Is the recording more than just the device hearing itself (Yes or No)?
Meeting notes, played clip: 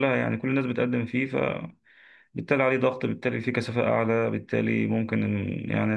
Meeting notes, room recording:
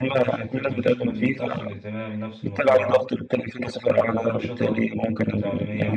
Yes